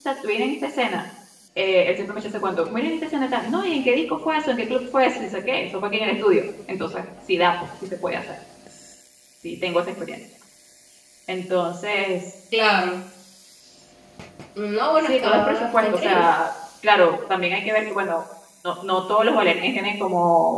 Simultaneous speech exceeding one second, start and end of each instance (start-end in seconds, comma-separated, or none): 15.1-16.3